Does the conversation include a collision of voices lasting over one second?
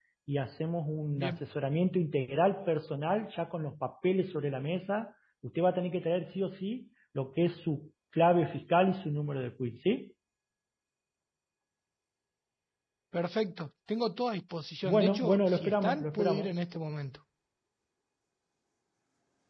Yes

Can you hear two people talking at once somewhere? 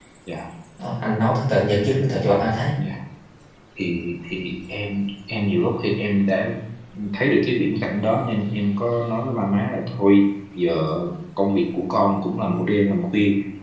No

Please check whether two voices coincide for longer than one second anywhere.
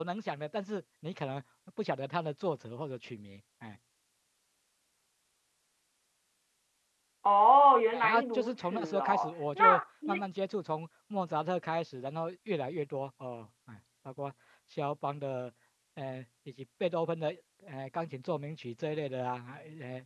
Yes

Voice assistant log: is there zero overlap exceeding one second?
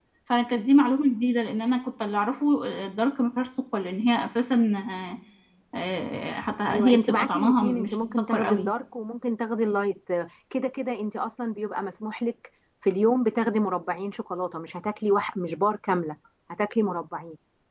No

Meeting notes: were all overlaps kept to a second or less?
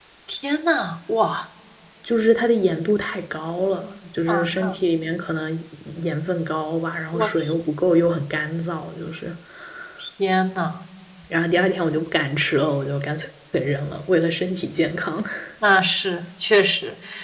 Yes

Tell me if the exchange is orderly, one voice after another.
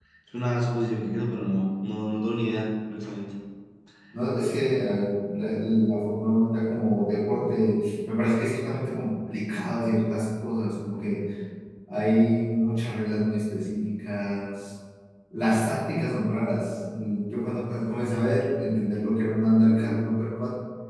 Yes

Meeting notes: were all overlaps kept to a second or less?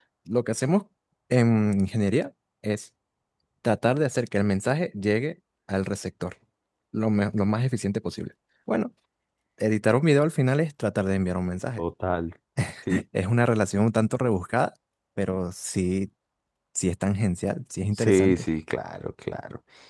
Yes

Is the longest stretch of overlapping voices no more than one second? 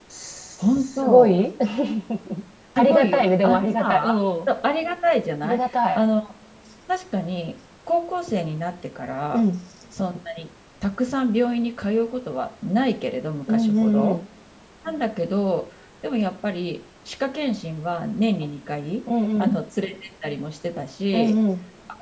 No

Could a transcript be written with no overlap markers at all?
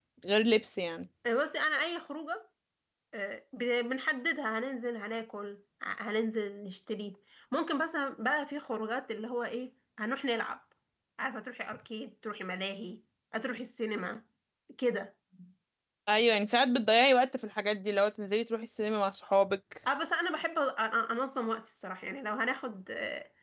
Yes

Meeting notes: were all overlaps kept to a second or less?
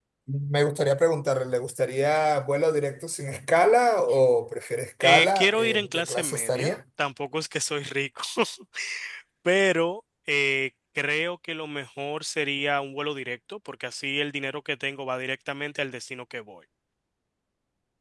No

